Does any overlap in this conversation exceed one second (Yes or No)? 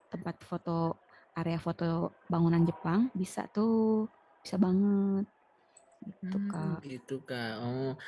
No